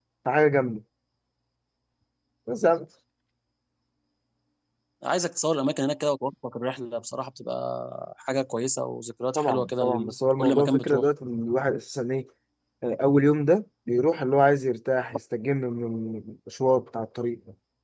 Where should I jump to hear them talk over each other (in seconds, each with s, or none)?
9.3 s